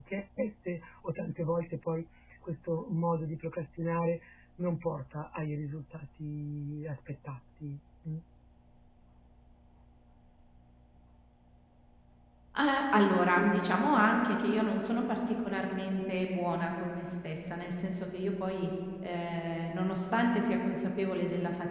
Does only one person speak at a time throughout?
Yes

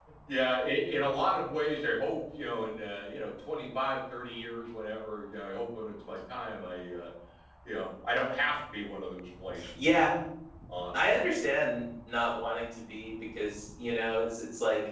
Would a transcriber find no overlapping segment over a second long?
Yes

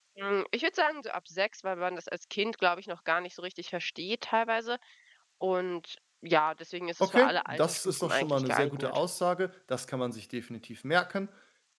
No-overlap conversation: No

